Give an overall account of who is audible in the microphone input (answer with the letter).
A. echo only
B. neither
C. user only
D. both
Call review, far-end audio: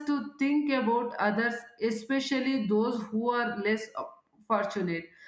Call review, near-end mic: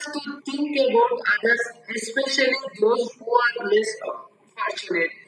A